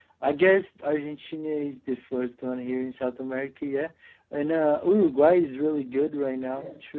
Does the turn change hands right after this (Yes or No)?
Yes